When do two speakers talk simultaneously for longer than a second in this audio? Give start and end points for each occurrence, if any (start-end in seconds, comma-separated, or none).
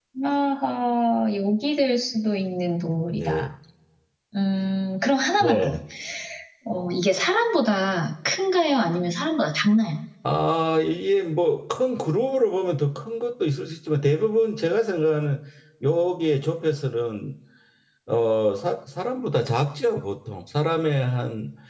none